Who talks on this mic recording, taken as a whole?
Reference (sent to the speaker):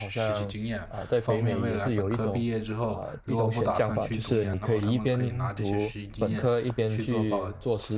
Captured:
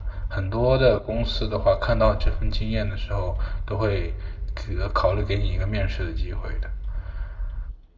user only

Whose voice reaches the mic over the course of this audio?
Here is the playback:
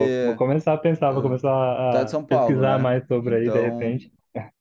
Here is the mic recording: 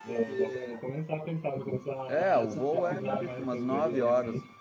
both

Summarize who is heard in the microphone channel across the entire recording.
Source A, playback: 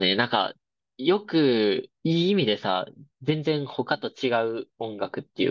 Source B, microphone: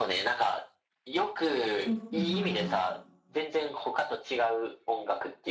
both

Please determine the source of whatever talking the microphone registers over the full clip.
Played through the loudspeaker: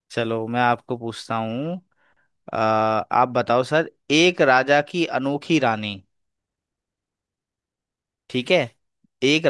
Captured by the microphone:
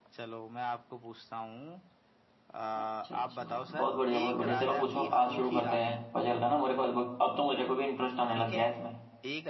both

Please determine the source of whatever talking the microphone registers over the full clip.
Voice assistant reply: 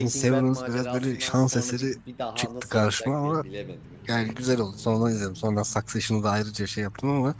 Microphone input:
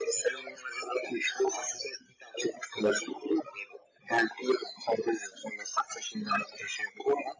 echo only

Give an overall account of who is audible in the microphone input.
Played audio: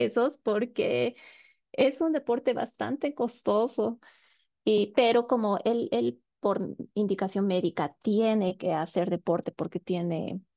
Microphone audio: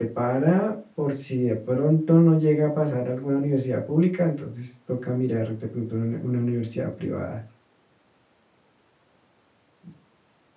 user only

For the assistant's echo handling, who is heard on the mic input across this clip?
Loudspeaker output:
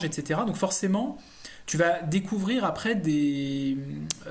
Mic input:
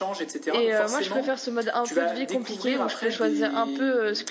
both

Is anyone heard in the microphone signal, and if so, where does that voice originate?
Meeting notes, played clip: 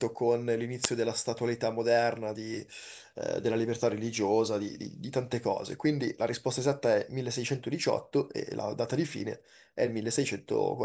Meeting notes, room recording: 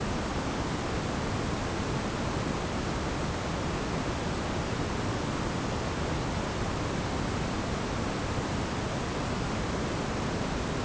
neither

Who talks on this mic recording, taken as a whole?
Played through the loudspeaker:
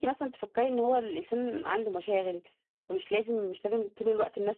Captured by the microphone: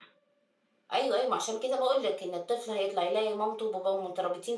user only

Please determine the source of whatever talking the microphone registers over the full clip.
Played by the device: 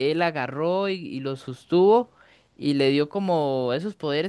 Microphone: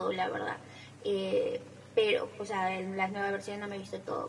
user only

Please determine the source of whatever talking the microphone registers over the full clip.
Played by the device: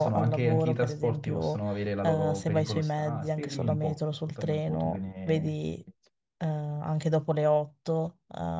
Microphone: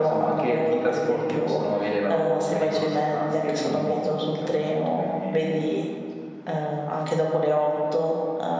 echo only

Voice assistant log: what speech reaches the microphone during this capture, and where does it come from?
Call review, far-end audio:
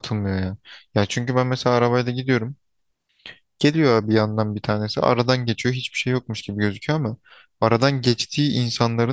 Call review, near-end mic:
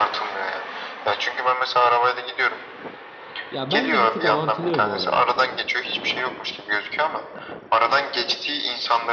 both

